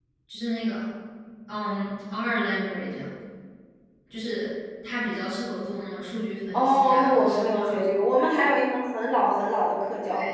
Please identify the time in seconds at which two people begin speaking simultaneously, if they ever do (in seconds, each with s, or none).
6.5 s